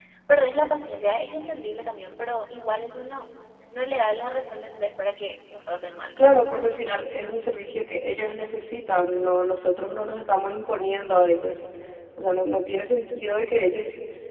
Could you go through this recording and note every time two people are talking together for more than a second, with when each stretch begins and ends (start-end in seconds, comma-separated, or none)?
none